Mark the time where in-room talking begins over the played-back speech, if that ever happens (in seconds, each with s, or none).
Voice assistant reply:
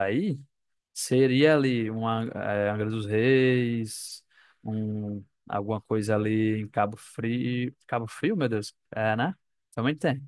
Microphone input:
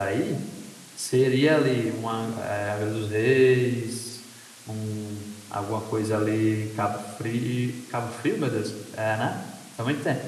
none